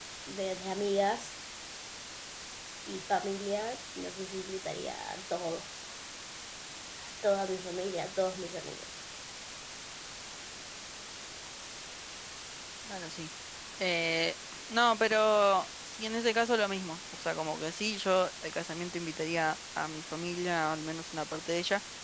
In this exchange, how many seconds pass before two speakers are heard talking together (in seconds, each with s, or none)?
none